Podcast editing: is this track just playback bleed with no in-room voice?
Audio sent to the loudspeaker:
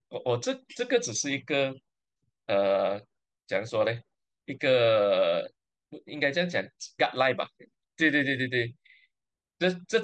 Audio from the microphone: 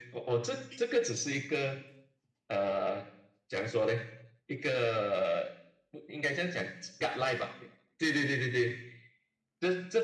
Yes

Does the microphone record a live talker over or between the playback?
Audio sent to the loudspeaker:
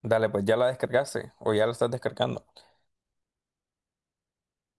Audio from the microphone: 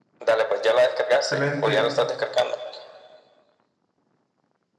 Yes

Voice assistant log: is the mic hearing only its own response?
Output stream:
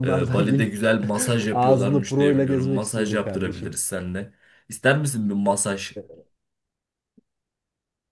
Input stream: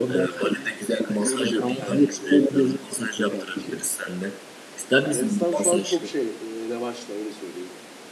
No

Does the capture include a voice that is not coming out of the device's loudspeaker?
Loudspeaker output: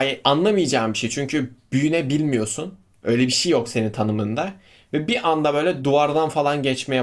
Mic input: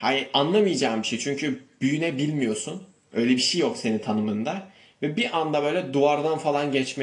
No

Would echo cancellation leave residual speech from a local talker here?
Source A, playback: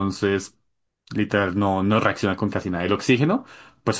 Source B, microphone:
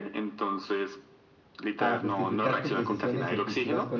Yes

